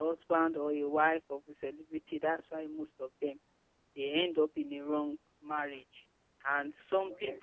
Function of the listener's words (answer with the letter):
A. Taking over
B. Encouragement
B